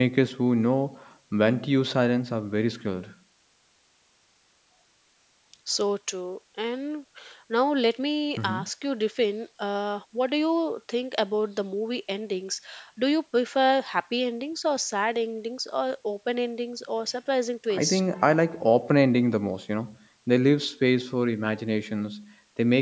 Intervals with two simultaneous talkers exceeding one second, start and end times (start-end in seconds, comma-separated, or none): none